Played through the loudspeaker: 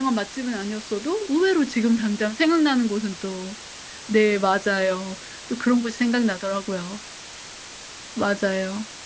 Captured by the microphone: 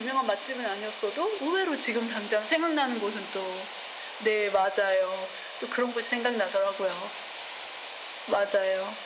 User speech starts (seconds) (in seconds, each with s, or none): none